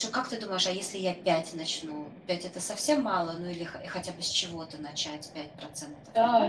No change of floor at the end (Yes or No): No